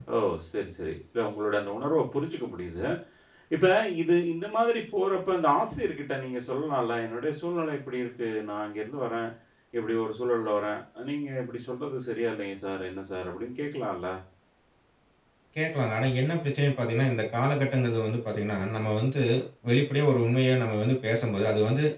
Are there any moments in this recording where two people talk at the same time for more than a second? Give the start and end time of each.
none

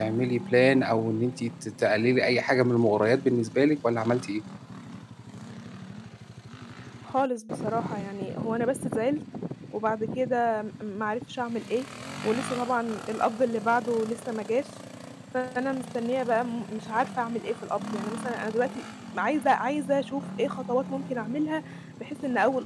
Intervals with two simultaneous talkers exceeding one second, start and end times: none

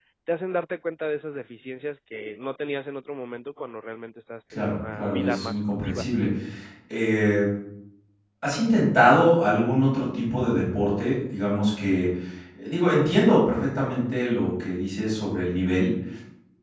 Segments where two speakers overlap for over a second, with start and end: 4.5-6.0

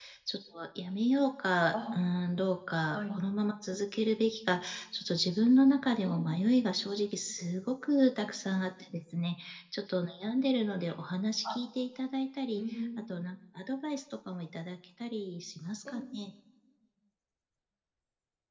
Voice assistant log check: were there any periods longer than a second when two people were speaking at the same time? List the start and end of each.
none

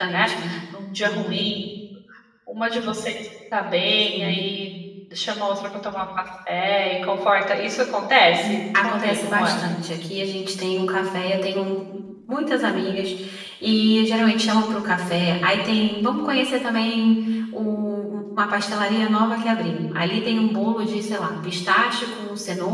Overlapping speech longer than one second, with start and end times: 8.4-9.6

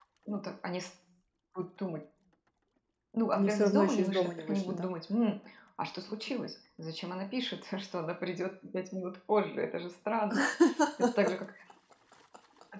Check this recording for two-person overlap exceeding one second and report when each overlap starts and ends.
3.3-4.9

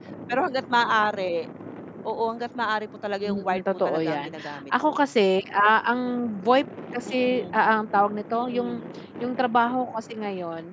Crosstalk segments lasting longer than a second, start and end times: 3.2-5.1

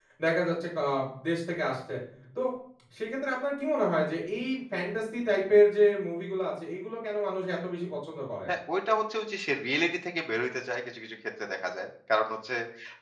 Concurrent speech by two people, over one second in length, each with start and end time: none

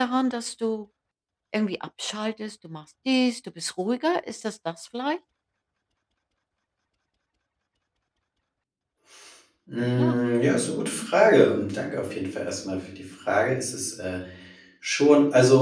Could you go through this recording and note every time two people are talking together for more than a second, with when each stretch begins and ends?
none

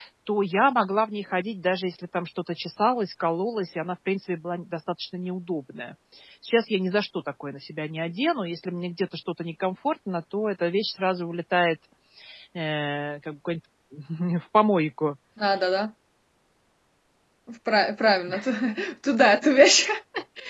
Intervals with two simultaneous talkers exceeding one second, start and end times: none

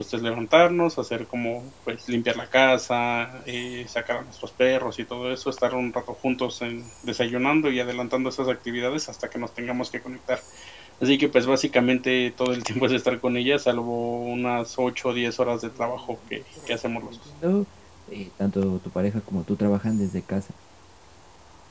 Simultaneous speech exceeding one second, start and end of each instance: 15.8-17.2

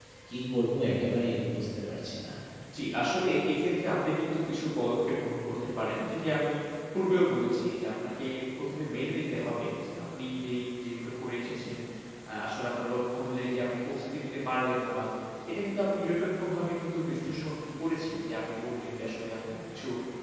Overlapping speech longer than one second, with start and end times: none

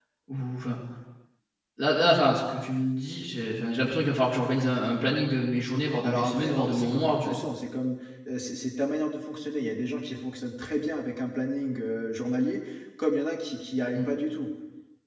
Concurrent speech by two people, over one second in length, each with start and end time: 6.0-7.4

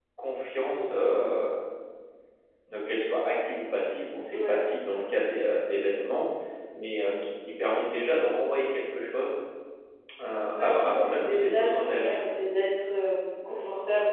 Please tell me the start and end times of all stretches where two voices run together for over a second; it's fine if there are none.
10.6-12.3

